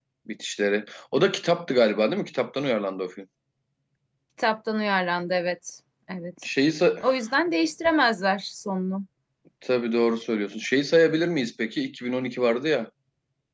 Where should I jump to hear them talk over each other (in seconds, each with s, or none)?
none